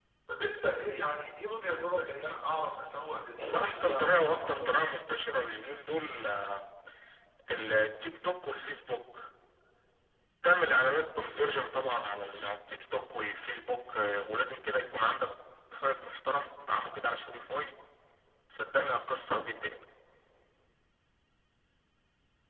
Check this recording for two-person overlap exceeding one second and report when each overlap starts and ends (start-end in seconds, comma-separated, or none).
3.4-4.9